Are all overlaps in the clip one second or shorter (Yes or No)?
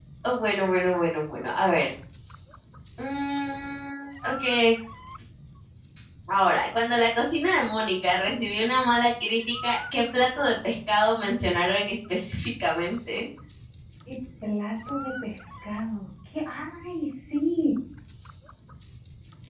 Yes